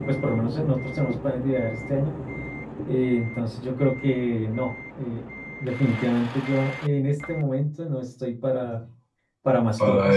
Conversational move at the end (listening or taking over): listening